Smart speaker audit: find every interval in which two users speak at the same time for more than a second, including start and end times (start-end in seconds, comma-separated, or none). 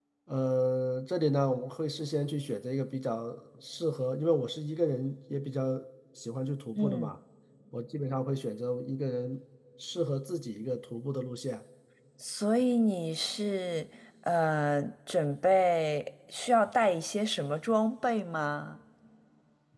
none